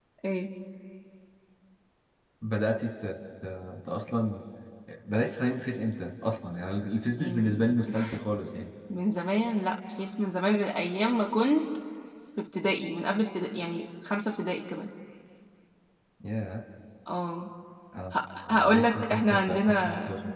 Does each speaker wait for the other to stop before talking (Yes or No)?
No